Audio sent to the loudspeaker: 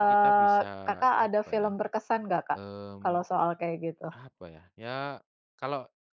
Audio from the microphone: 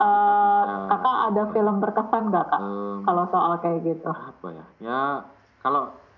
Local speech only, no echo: none

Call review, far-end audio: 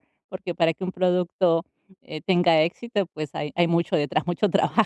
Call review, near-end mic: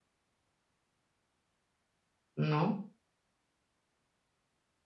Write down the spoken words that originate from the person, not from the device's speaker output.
¿No?

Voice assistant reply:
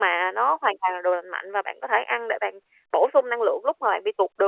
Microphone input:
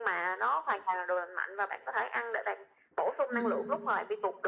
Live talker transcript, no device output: Ừm, ừm.

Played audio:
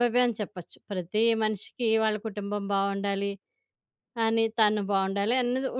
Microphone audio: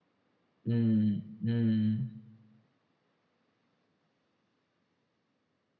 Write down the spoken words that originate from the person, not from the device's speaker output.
హ్మ్. హ్మ్.

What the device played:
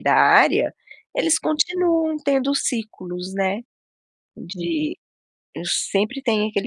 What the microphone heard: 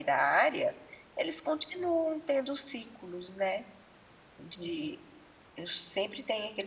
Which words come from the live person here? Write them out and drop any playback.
none

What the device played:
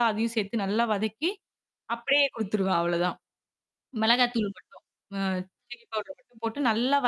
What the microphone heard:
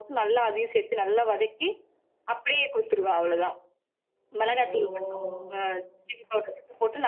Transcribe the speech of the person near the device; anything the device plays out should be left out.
ஓ!

